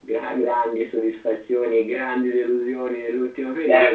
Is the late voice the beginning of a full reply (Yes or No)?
Yes